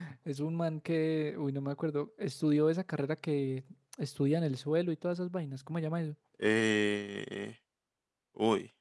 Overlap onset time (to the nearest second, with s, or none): none